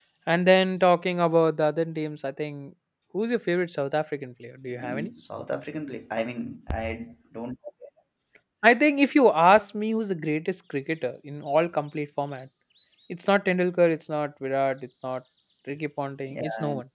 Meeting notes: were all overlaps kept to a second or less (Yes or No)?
Yes